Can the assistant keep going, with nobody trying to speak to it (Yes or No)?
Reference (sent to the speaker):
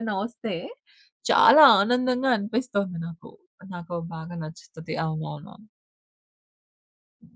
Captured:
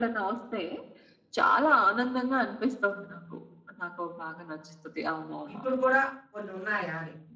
No